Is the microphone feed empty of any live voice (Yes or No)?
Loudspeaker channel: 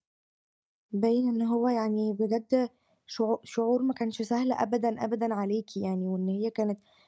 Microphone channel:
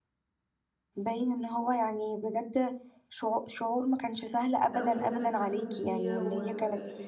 No